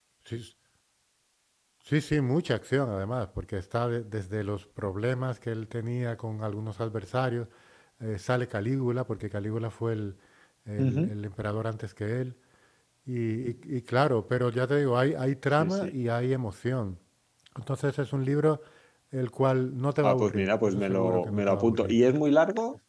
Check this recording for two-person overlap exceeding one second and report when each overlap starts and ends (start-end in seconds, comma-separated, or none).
20.0-22.0